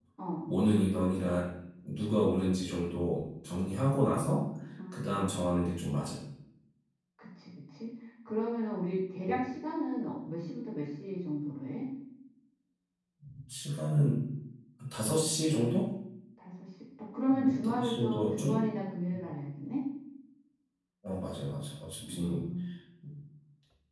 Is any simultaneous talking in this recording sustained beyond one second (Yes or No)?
Yes